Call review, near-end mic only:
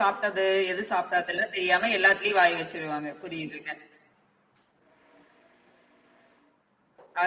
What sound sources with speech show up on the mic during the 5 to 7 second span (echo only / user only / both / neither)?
neither